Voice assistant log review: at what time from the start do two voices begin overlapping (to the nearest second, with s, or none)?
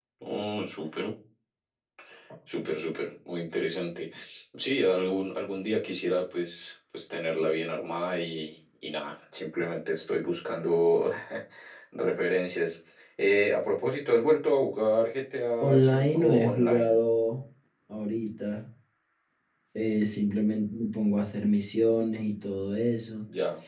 16 s